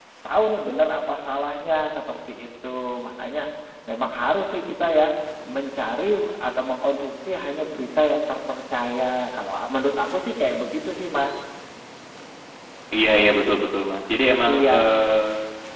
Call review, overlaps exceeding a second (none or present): none